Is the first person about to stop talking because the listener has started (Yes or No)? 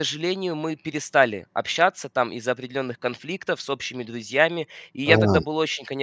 No